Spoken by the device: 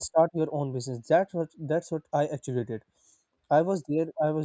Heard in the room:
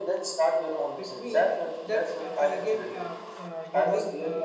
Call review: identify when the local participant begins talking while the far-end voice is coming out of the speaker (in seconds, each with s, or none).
0.9 s